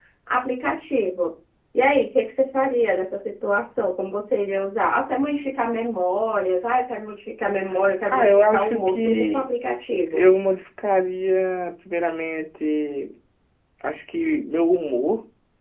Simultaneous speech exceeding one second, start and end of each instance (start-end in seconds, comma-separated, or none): 8.1-9.4